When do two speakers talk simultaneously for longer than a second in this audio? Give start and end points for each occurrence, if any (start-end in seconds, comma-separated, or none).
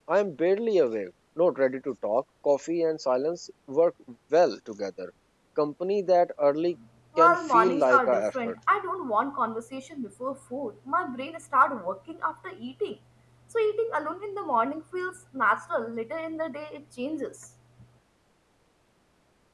7.2-8.5